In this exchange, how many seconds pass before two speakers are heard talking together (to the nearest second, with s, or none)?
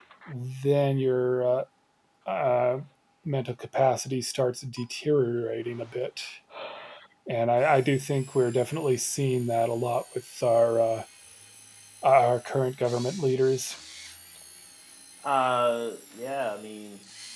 none